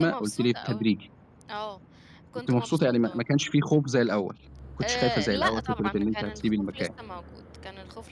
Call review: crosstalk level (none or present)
present